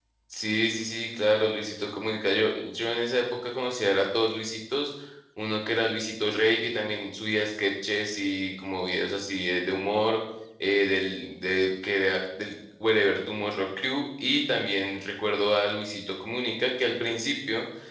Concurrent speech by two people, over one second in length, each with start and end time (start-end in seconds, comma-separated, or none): none